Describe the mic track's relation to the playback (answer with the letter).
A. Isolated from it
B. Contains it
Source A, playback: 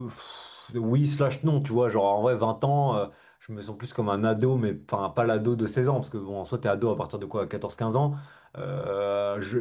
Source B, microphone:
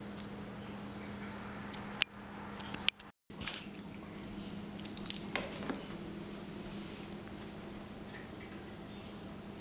A